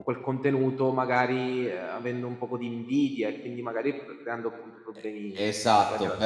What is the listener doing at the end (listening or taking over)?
taking over